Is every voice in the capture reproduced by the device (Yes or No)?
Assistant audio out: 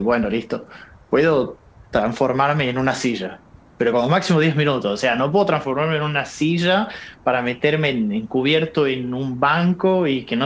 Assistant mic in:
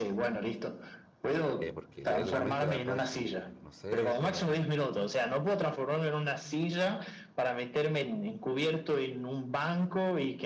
No